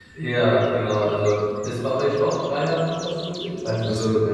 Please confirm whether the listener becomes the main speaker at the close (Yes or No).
Yes